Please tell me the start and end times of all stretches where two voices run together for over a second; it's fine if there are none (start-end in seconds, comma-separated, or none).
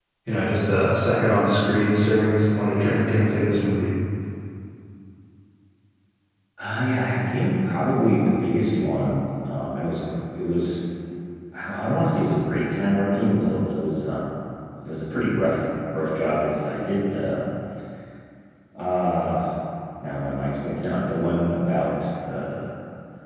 none